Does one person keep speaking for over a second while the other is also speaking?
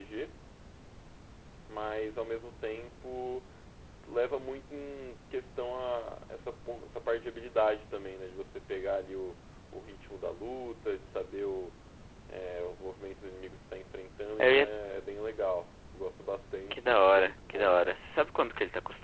Yes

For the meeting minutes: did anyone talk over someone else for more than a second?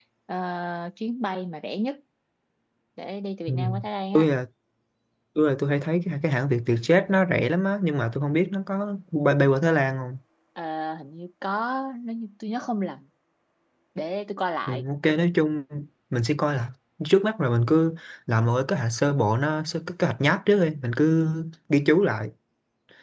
No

